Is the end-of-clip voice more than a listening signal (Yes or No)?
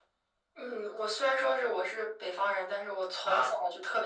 No